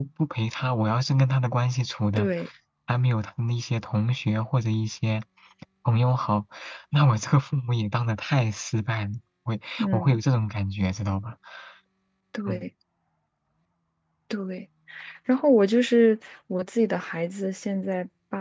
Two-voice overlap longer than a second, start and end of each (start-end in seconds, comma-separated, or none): none